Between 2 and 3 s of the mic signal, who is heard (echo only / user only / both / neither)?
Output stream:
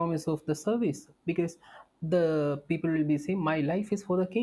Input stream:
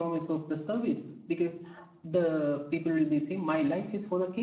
echo only